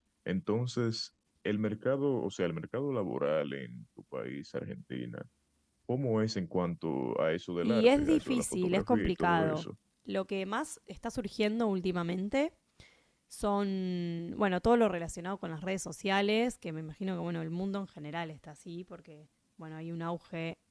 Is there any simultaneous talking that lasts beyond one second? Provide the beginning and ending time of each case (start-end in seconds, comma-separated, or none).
7.6-9.7